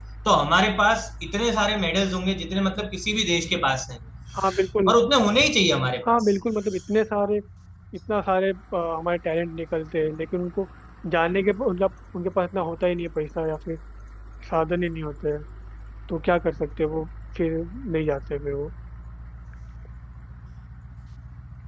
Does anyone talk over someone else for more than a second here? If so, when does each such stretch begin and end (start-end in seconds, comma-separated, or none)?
none